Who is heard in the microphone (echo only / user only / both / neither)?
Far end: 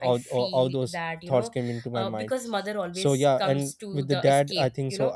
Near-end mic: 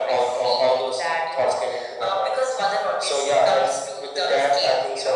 echo only